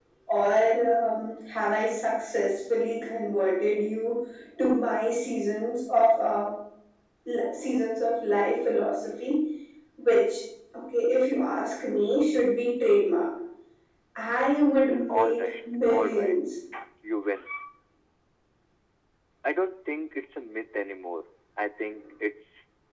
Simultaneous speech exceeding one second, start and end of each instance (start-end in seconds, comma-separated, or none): 15.1-16.4